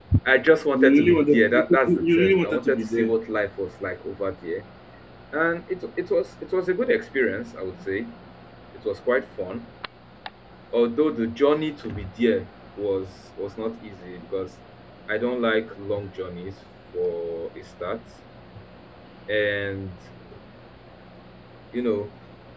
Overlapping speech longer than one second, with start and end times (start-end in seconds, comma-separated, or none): 0.7-3.1